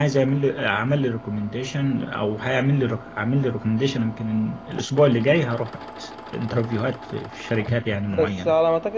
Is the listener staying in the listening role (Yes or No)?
No